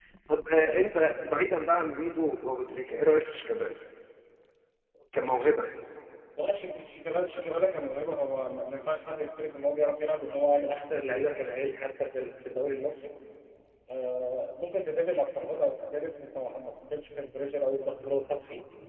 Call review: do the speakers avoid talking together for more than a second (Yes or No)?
Yes